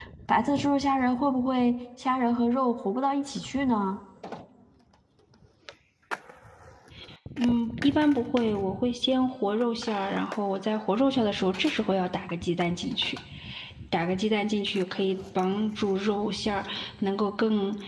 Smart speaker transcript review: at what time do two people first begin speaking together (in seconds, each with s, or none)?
none